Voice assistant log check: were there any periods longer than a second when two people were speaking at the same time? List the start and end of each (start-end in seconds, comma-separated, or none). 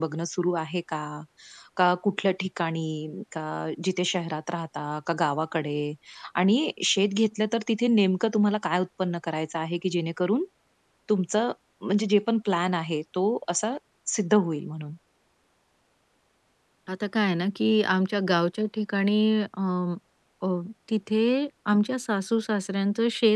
none